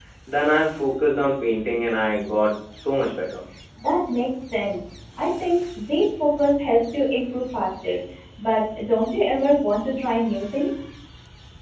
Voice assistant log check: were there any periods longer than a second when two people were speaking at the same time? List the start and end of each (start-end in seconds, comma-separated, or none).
none